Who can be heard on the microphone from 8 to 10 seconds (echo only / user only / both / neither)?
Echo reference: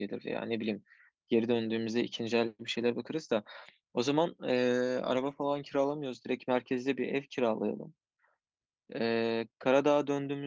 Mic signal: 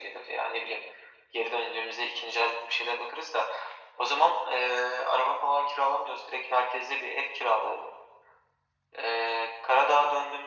echo only